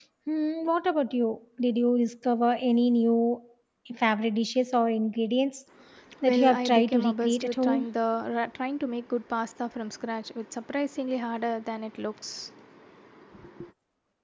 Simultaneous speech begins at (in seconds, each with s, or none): 6.2 s